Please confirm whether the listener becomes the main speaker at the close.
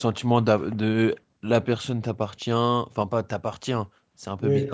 No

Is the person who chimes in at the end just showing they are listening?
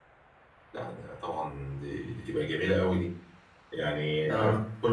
No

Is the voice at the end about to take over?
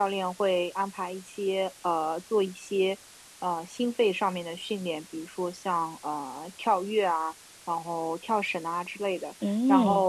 No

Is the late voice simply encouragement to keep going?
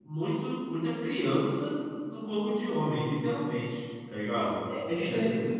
No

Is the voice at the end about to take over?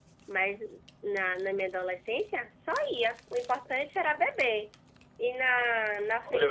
Yes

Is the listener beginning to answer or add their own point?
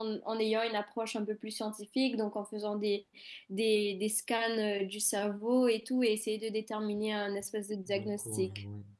Yes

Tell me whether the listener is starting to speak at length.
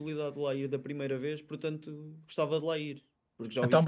Yes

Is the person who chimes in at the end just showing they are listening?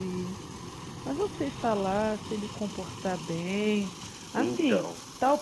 Yes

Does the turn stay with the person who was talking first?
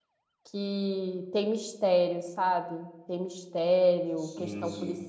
Yes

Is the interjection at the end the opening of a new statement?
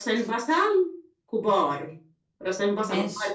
No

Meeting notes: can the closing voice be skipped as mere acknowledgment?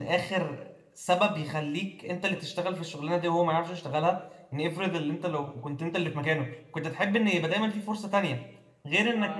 Yes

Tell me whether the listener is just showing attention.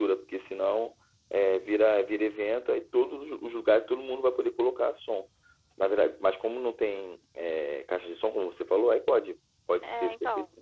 No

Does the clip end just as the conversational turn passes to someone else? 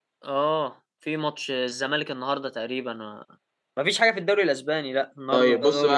Yes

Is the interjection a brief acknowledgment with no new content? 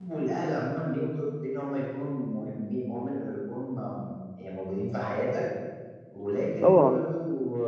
Yes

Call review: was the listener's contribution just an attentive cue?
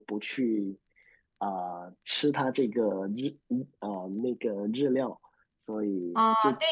No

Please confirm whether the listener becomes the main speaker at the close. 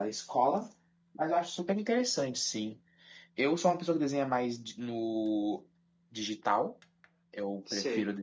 No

